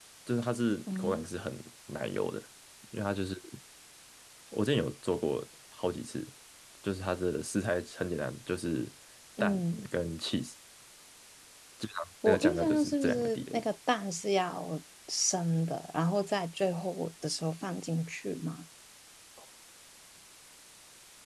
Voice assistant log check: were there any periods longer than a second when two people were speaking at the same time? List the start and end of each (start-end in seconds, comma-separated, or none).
12.2-13.6